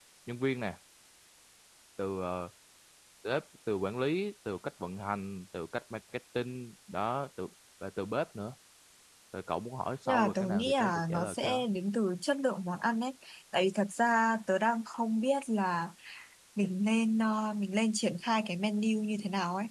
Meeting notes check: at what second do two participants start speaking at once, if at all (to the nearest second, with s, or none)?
10 s